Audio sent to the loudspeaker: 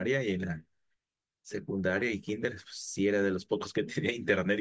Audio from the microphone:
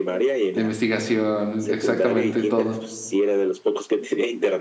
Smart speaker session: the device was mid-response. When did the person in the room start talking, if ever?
0.5 s

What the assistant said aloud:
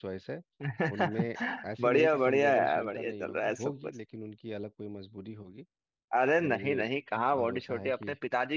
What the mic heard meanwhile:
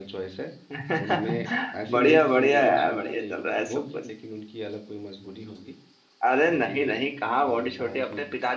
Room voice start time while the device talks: none

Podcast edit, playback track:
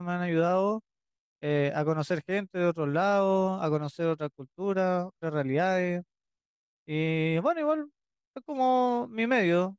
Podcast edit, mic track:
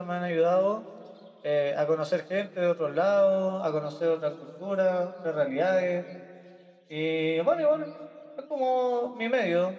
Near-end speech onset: none

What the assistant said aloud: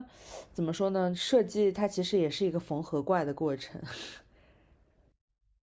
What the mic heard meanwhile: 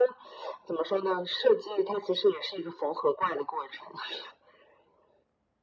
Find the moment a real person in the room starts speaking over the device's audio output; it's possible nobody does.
none

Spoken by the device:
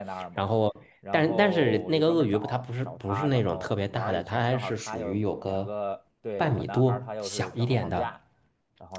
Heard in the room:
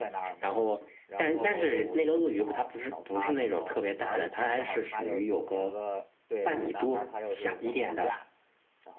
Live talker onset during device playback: none

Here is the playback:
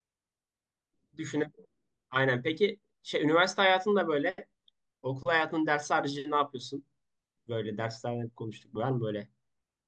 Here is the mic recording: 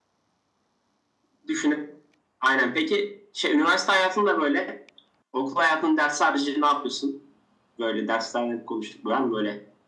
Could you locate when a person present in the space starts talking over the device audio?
none

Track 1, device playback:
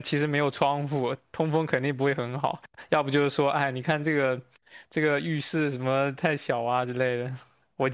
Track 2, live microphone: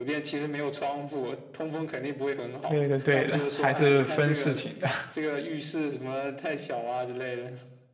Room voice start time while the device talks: 2.6 s

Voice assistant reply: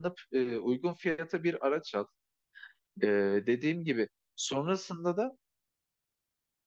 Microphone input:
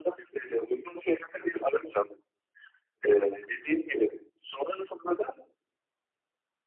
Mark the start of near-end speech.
none

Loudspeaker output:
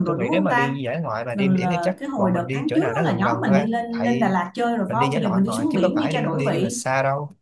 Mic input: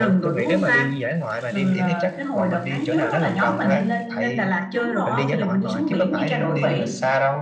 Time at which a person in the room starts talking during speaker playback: 4.7 s

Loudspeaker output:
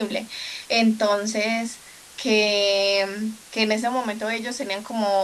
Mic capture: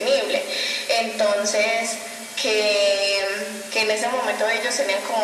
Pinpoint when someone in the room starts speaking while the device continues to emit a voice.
none

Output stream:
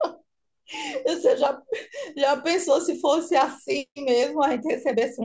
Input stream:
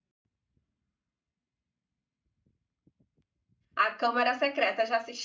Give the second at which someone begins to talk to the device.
3.8 s

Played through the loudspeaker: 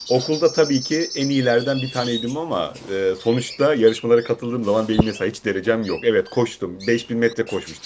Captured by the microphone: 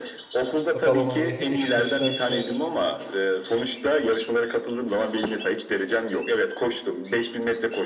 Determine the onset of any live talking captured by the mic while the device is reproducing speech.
0.7 s

